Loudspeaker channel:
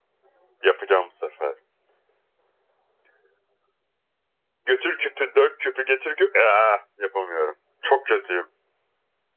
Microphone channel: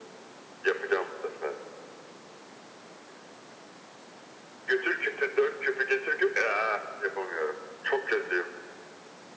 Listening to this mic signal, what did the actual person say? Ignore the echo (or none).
none